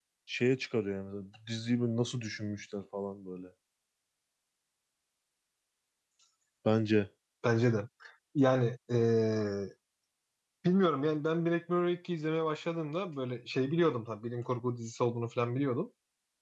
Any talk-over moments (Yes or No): No